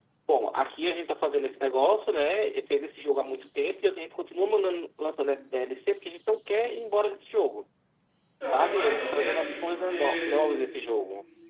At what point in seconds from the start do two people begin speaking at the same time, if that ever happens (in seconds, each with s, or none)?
8.5 s